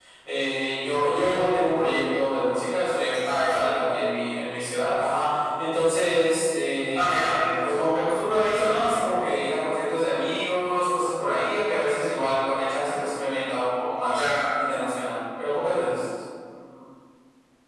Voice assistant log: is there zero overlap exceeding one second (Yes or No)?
Yes